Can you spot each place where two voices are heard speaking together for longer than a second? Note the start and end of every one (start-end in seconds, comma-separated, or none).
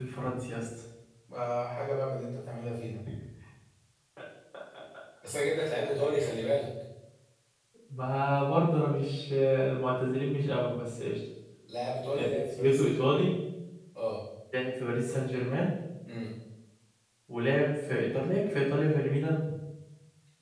12.1-13.3